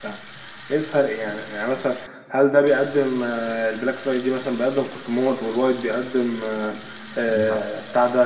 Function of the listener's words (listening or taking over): listening